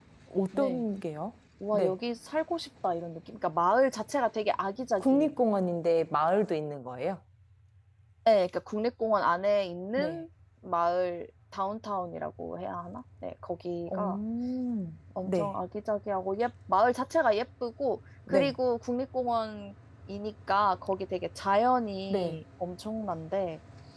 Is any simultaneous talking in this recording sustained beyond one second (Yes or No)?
No